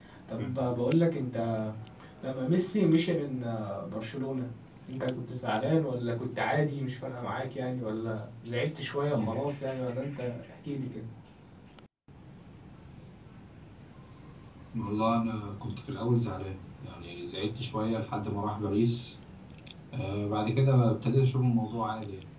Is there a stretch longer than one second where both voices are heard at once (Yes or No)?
No